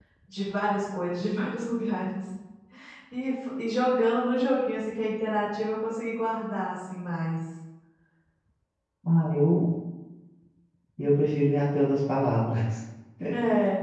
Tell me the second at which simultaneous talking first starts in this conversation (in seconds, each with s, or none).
none